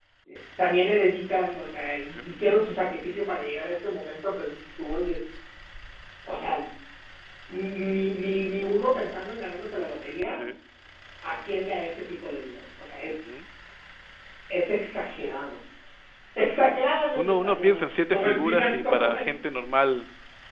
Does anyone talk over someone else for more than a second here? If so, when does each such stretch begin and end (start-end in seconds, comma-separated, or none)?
17.1-19.3